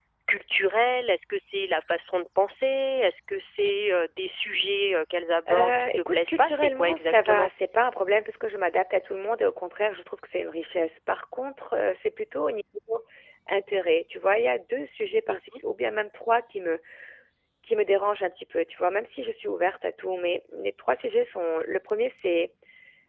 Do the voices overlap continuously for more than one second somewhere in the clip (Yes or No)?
Yes